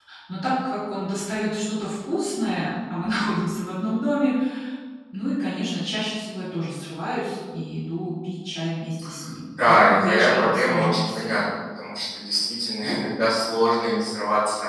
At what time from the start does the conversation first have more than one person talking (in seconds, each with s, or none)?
9.6 s